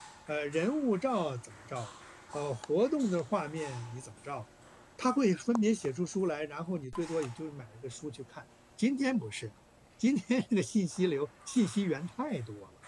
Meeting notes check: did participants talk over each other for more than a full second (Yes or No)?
No